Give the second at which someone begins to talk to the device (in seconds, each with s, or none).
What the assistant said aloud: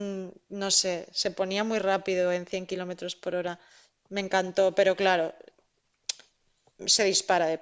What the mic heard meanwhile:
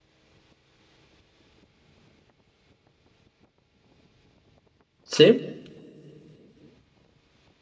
5.0 s